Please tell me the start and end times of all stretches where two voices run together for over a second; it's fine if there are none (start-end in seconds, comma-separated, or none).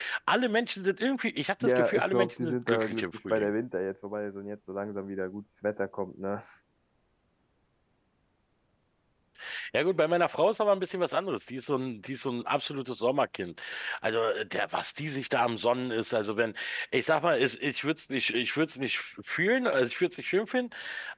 1.6-3.5